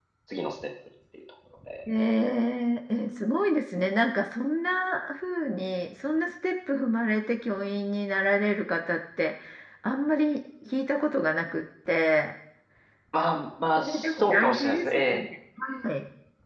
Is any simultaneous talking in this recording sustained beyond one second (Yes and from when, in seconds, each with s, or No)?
Yes, from 13.8 s